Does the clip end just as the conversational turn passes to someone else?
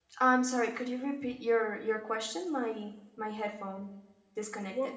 Yes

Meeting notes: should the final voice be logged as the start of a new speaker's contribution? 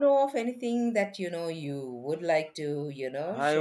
Yes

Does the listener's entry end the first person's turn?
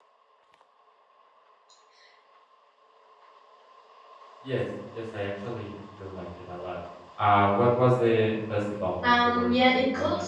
Yes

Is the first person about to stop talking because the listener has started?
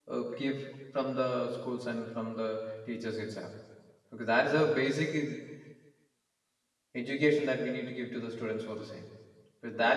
No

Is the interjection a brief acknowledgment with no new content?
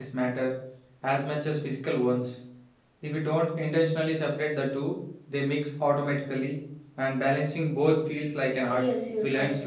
No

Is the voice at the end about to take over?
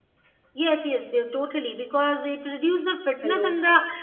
No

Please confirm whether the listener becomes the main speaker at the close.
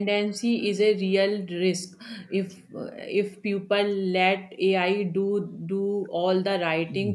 No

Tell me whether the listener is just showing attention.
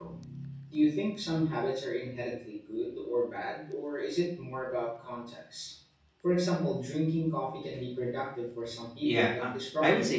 No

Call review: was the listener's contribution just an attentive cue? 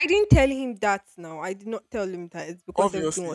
No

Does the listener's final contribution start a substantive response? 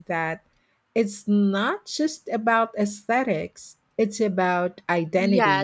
Yes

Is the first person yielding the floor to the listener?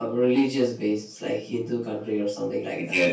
No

